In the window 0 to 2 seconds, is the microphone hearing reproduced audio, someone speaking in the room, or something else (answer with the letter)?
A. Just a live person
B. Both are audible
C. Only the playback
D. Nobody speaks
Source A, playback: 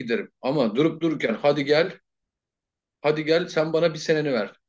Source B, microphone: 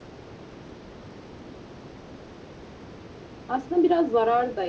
D